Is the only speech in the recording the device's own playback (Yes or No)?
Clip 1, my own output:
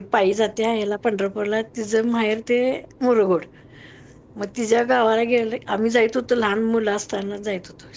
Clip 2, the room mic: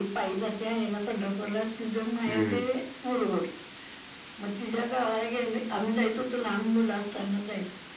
No